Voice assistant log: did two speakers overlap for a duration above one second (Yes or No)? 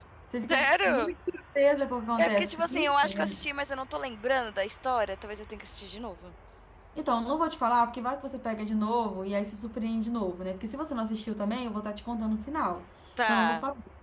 Yes